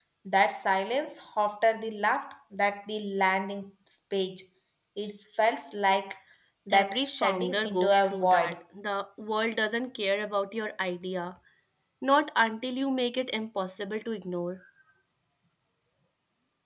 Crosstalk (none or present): present